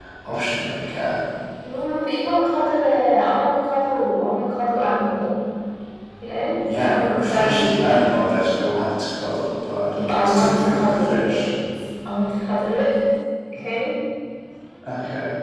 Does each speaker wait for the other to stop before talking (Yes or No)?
No